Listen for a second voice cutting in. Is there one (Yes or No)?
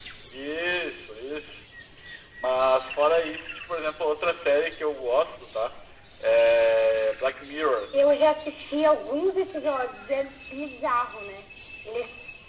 No